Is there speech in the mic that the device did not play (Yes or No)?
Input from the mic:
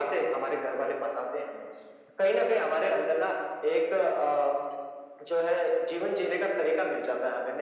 No